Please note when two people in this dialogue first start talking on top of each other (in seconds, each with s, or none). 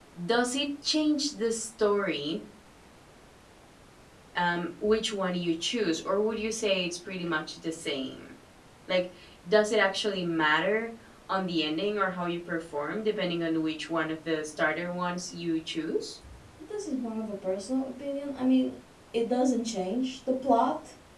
none